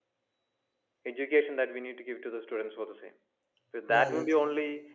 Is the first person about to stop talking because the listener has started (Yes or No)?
No